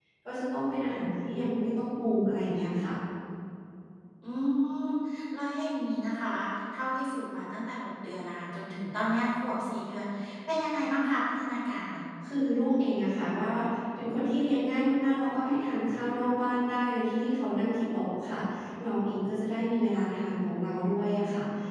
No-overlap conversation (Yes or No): Yes